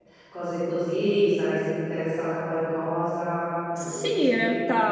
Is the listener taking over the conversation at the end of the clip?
Yes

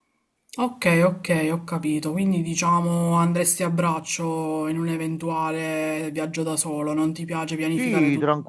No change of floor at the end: No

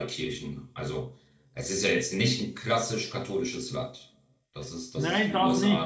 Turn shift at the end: Yes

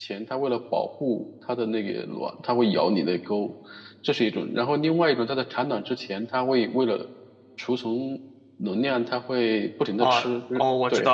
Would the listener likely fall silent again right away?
No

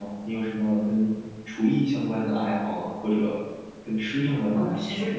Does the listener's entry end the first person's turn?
Yes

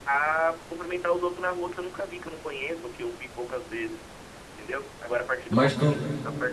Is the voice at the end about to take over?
No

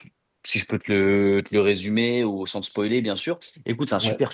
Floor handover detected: No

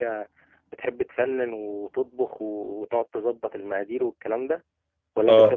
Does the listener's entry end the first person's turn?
Yes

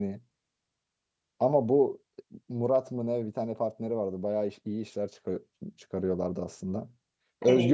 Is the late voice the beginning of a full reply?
No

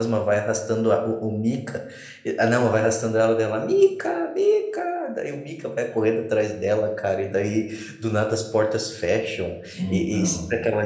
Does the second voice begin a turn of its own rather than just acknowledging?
No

